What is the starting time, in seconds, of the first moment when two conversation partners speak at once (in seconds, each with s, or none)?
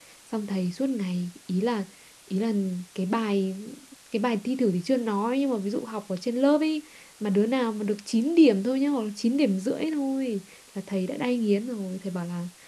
none